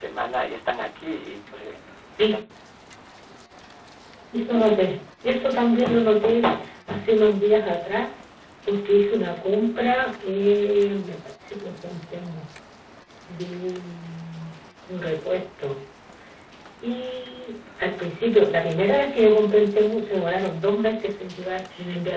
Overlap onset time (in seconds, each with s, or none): none